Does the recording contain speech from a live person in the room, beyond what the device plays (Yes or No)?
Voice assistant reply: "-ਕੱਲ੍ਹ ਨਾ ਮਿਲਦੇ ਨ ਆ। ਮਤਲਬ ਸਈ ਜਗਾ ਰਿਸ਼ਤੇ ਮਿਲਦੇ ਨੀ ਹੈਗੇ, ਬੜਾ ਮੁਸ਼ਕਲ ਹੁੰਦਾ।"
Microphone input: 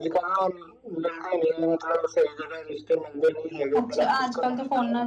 Yes